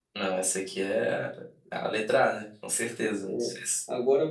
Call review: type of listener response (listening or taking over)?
taking over